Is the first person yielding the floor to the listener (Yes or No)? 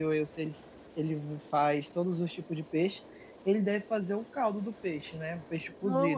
Yes